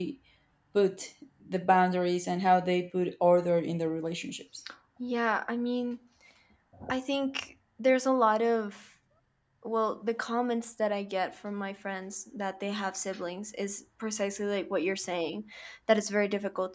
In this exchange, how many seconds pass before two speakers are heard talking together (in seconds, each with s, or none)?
none